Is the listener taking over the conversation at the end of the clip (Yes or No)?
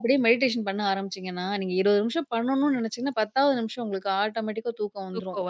No